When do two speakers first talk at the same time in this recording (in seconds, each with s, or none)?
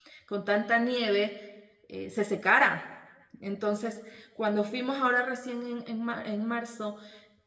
none